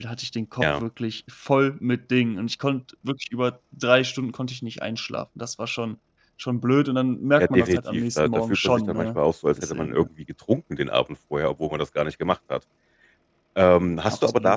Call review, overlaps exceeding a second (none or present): present